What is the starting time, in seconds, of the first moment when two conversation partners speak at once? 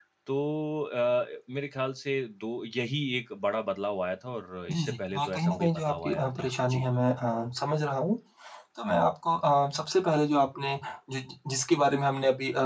5 s

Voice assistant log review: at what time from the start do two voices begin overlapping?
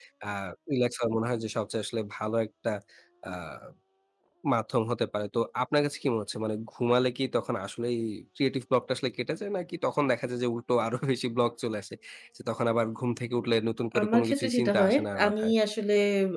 14 s

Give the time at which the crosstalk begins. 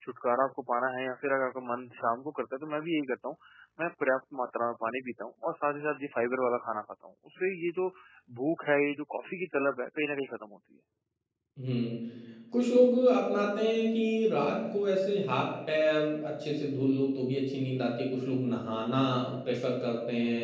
none

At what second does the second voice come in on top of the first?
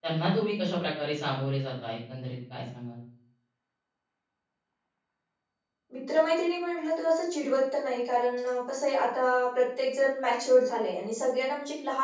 none

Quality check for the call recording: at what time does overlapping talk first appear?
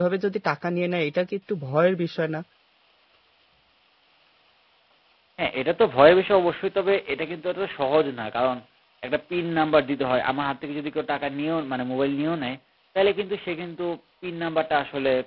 none

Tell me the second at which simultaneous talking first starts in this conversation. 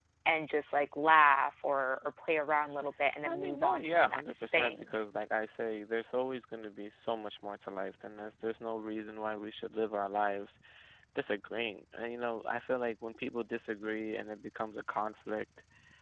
3 s

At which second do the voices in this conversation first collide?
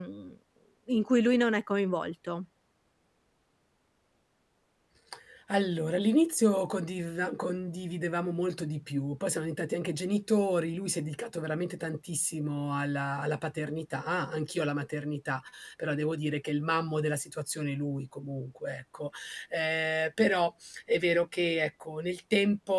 none

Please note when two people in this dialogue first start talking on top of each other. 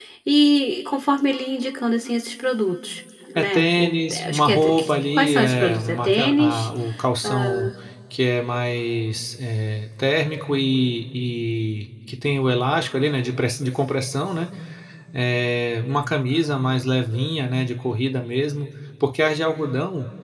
3 s

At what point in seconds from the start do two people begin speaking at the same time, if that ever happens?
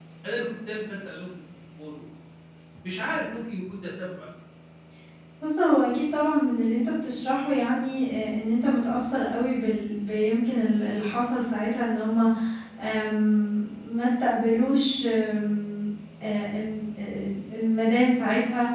none

